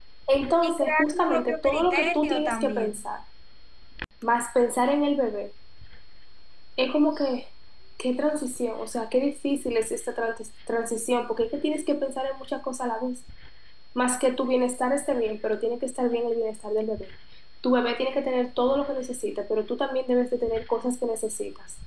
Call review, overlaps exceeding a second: present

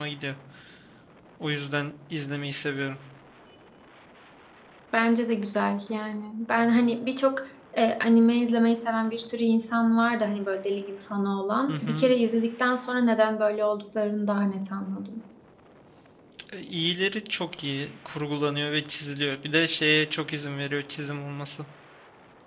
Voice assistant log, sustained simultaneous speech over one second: none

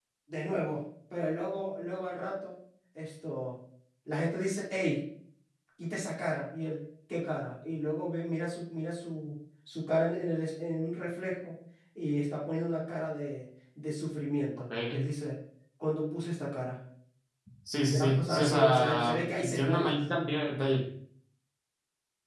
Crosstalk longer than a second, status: present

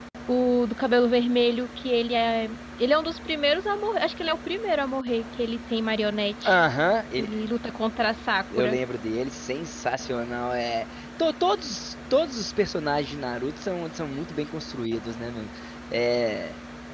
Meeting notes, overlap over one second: none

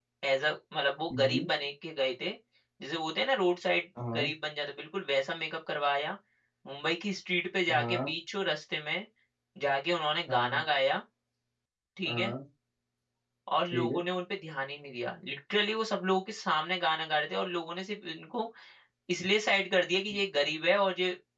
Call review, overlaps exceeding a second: none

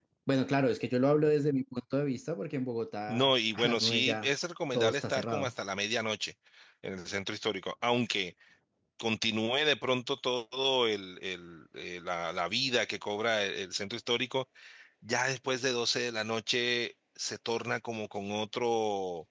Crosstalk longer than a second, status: present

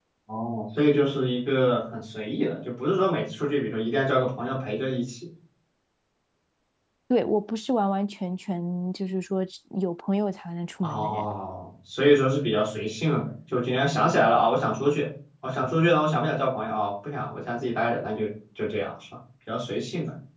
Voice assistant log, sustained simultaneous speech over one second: none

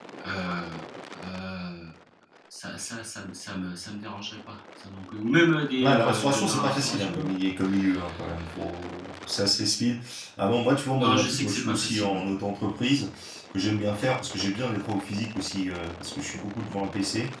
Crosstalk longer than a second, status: present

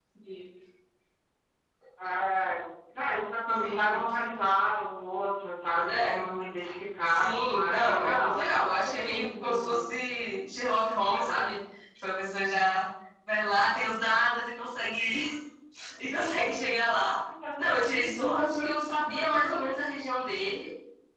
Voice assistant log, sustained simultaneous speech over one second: present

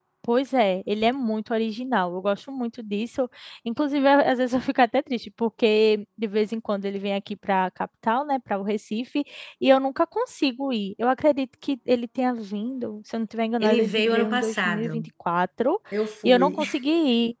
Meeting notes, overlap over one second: present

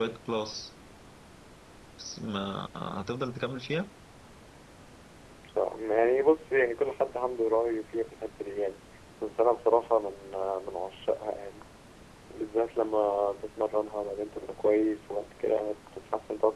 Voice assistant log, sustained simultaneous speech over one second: none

